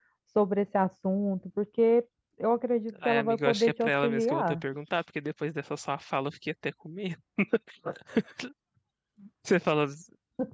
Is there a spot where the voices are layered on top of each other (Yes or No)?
Yes